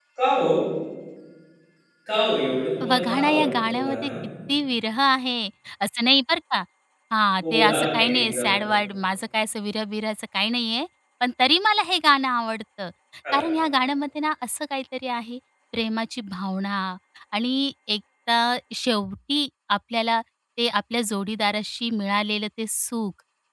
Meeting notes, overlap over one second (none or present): present